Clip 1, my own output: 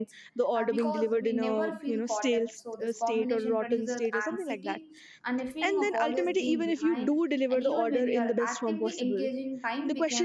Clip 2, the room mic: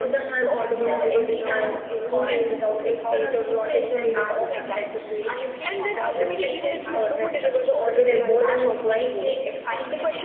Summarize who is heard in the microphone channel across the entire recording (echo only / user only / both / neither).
both